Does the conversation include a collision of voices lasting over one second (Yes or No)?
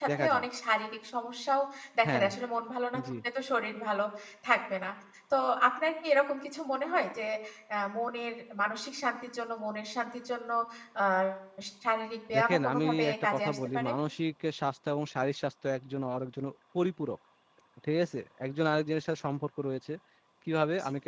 Yes